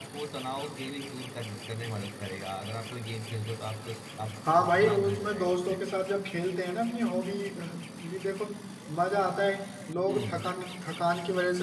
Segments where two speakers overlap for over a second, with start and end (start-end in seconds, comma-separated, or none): 4.6-5.8